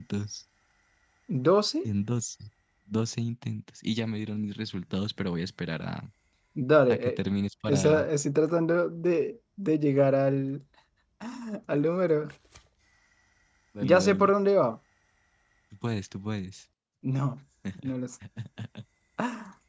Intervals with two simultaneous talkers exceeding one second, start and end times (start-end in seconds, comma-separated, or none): none